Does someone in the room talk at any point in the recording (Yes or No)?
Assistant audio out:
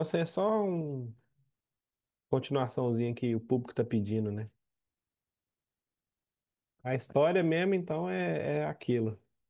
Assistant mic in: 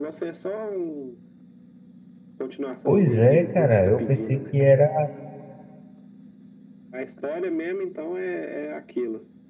Yes